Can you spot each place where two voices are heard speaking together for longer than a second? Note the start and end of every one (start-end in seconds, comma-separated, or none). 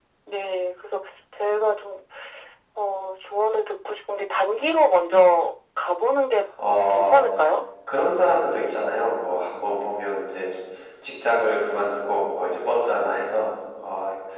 none